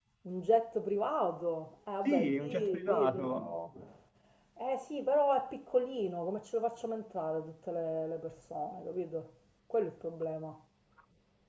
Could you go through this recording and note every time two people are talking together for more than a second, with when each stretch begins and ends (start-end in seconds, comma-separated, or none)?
2.0-3.5